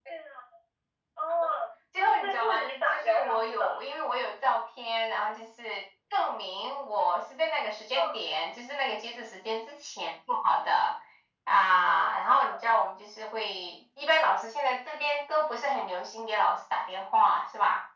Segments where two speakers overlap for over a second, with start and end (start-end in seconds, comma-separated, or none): 2.0-3.8